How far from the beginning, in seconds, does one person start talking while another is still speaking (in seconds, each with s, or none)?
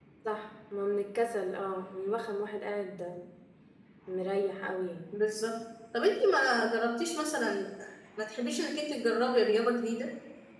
none